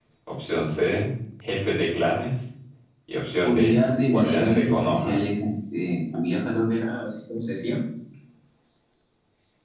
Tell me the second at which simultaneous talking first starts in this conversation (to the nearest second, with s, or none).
3 s